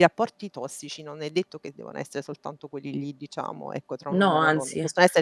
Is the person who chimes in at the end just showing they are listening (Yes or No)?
Yes